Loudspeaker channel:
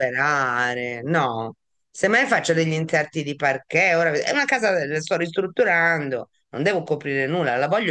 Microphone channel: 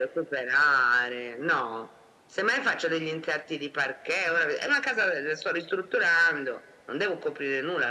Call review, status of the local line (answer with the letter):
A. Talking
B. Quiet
B